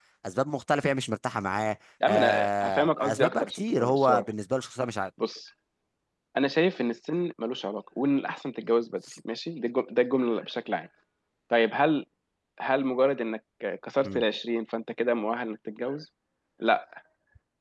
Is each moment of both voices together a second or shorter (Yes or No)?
No